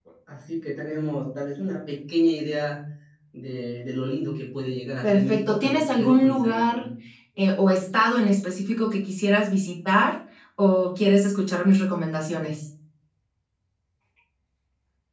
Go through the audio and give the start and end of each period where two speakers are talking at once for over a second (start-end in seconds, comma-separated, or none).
5.0-6.8